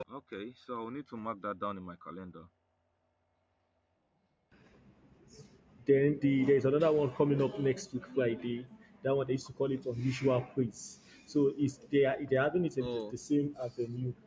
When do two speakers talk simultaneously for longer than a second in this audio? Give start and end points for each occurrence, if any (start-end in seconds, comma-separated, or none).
none